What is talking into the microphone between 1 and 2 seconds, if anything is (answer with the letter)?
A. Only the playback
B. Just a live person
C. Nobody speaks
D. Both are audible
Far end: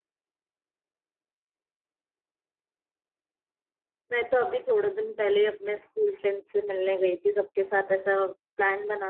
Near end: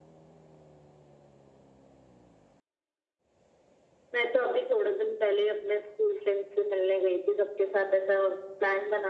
C